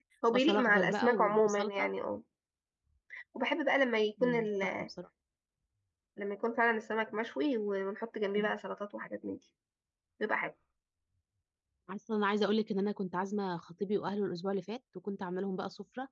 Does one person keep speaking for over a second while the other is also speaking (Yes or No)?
Yes